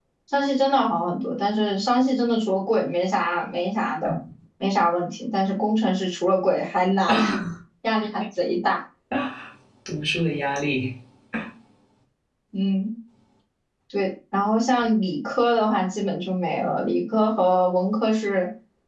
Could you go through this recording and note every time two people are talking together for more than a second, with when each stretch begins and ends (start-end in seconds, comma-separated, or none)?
none